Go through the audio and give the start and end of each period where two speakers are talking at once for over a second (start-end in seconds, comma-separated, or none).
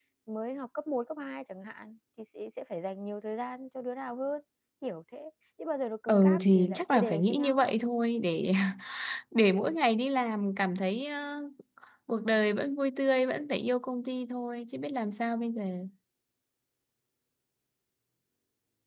6.1-7.7